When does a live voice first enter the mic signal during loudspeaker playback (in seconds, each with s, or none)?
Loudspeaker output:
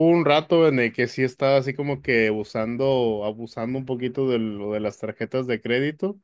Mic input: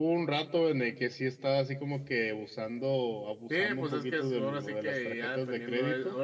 3.5 s